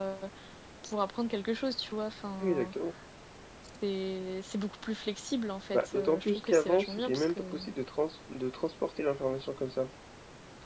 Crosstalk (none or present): present